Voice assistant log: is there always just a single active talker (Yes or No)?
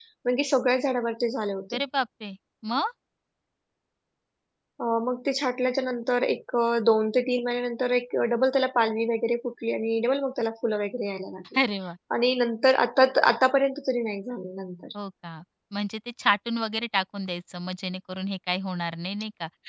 Yes